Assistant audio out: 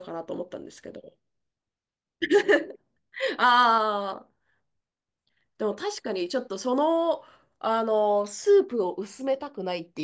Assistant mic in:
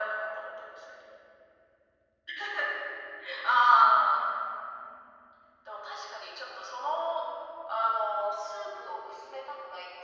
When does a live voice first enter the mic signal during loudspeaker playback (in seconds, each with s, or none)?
none